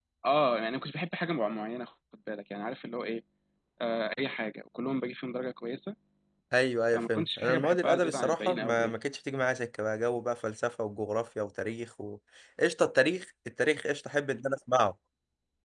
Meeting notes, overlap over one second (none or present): present